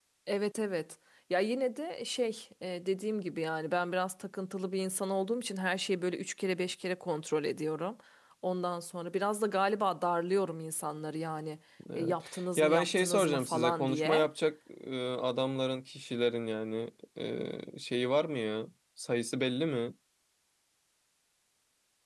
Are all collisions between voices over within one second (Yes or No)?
No